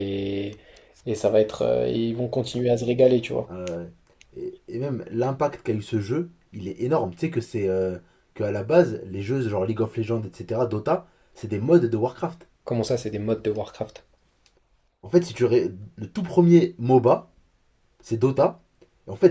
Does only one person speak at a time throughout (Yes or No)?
Yes